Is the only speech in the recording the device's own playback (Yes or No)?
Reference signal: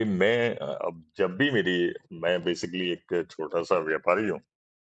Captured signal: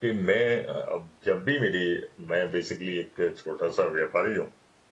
Yes